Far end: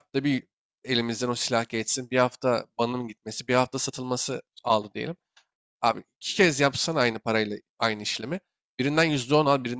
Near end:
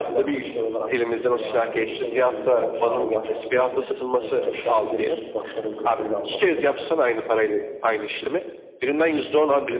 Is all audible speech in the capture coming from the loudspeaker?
No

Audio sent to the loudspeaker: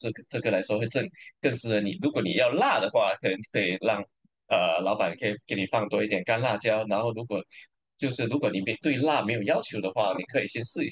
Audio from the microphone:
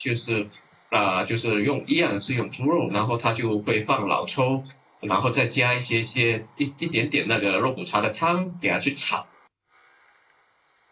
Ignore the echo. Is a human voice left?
Yes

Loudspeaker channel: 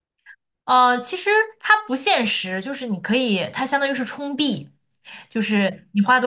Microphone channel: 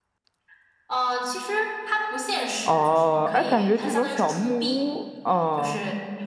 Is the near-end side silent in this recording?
No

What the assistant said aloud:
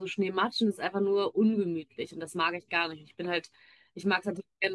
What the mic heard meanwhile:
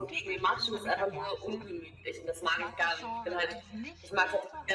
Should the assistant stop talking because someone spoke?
Yes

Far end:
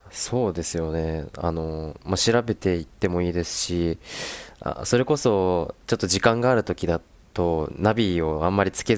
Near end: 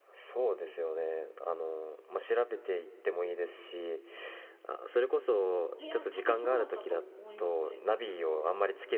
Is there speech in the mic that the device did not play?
Yes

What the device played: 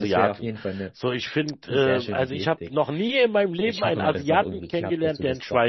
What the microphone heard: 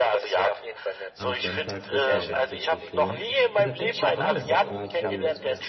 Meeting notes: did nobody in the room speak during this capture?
No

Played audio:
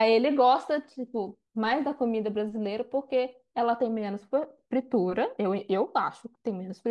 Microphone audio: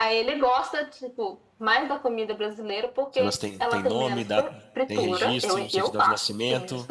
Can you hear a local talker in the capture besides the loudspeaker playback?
Yes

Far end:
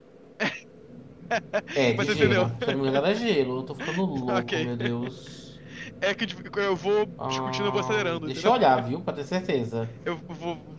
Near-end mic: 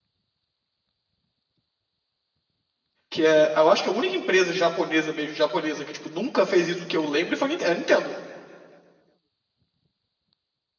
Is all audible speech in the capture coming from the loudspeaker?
No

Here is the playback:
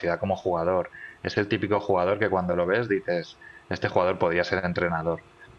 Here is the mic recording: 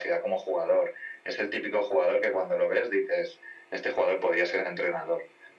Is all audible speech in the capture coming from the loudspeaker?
Yes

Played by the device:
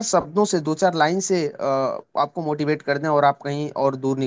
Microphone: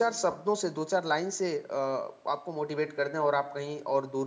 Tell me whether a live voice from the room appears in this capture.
No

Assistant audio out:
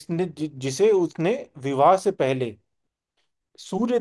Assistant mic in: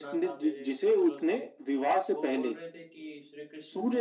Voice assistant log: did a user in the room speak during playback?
Yes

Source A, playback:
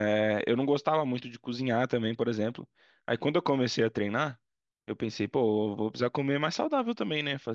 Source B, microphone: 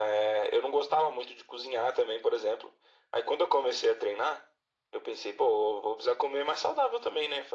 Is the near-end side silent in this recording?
Yes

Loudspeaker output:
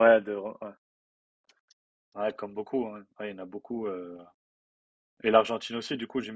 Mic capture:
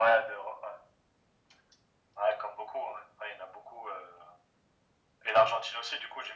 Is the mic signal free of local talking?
Yes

